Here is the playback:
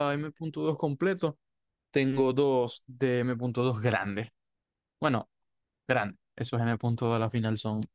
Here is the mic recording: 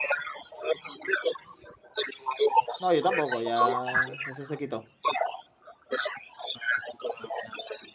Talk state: both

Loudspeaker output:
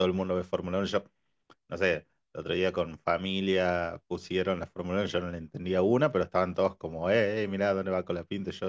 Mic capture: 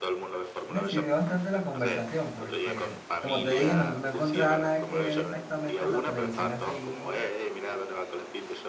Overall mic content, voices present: both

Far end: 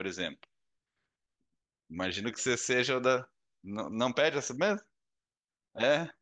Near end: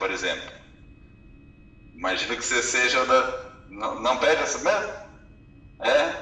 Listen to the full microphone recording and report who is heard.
echo only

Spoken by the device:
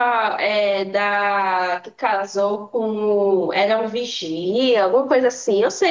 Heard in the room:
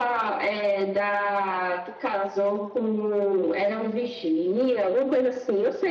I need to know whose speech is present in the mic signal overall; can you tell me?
echo only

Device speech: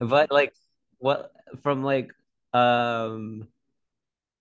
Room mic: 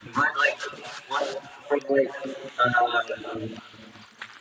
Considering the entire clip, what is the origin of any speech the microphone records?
echo only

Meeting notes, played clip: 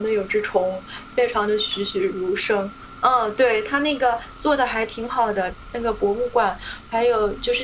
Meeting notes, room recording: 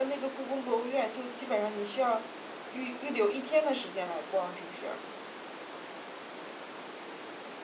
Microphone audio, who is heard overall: user only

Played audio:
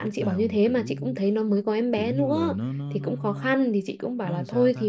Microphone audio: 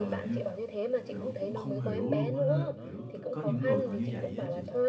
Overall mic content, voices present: both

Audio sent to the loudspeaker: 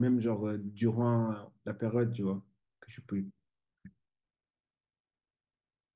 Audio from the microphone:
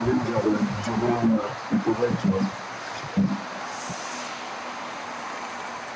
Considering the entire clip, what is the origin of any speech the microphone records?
echo only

